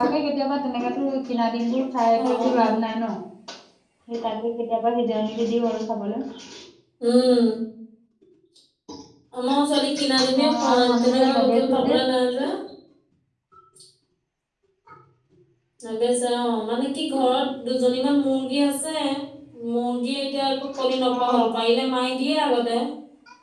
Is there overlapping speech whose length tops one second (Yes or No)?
Yes